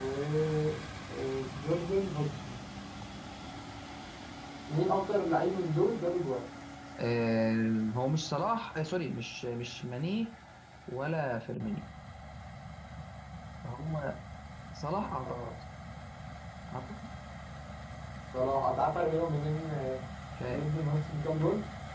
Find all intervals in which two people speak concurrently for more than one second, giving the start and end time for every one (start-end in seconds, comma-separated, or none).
none